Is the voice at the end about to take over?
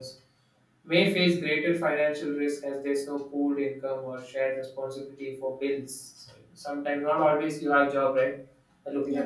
No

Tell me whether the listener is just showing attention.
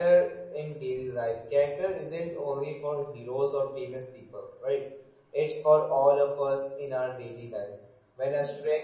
Yes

